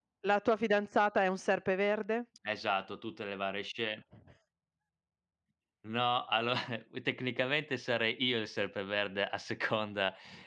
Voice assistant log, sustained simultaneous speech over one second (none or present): none